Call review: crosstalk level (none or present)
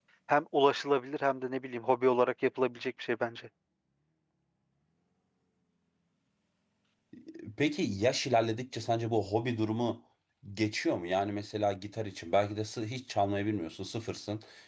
none